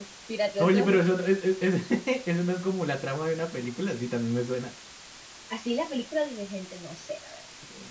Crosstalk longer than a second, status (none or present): none